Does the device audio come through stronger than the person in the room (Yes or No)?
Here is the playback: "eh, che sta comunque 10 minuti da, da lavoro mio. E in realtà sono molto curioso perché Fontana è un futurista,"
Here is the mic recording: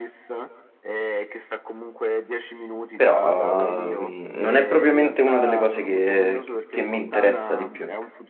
No